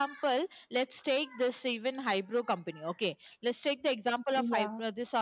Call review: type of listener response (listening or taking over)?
listening